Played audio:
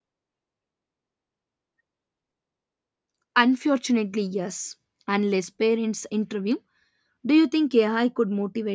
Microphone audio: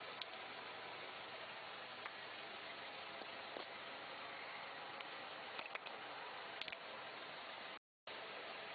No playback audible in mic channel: Yes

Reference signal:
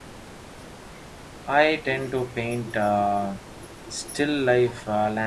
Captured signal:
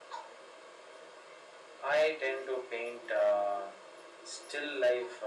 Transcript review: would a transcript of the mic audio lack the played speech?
No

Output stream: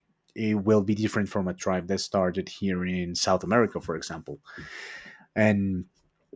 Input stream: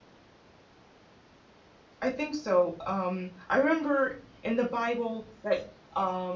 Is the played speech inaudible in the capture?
Yes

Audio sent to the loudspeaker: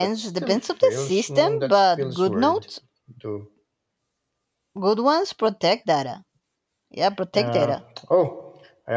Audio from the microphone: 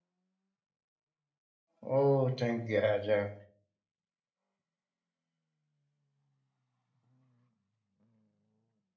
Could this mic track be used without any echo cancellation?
Yes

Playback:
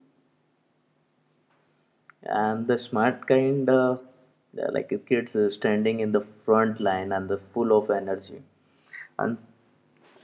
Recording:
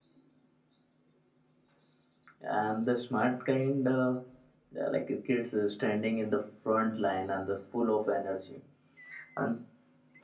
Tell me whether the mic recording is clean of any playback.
No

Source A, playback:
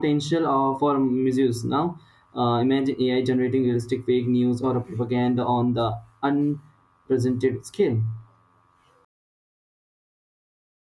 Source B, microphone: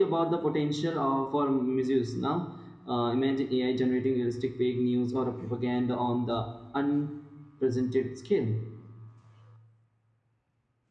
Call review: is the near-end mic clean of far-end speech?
No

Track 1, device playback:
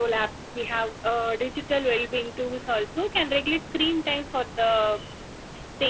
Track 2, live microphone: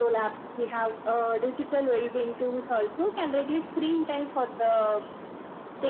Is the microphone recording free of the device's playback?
No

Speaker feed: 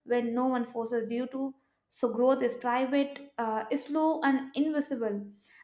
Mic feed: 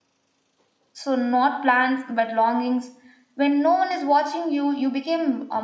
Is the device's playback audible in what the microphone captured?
No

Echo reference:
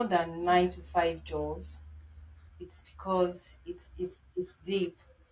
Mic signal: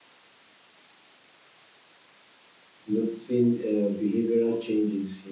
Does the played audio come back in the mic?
No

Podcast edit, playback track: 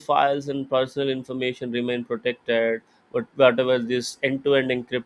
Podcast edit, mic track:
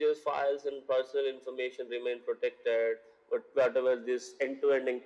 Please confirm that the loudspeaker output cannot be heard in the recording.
No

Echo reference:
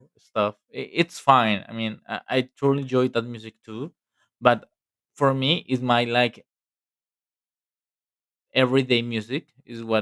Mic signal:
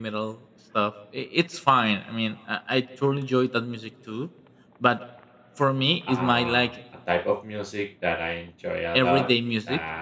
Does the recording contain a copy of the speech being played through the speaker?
Yes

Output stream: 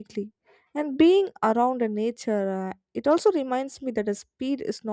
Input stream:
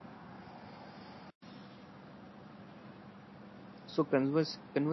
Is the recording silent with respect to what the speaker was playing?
Yes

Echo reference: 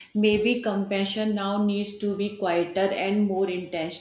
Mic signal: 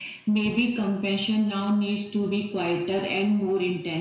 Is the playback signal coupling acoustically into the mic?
Yes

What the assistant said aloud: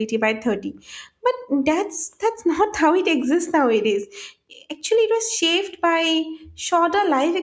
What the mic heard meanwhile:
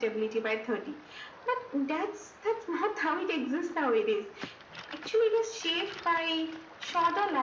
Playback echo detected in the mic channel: Yes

